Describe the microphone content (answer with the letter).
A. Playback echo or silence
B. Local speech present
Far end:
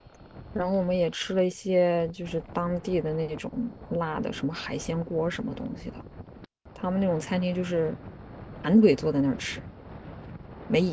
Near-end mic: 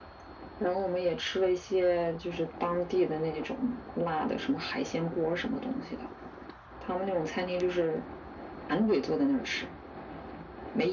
A